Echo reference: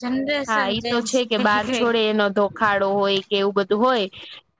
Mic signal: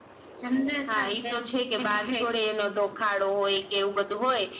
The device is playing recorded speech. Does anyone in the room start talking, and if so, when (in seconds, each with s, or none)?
none